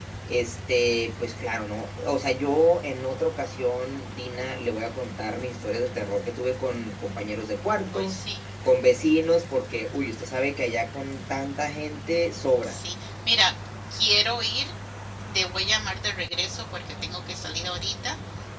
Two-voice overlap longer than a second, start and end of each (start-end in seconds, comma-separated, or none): none